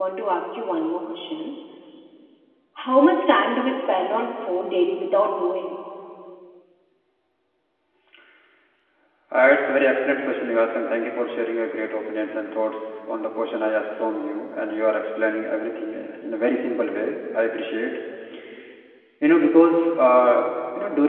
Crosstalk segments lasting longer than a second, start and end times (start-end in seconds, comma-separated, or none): none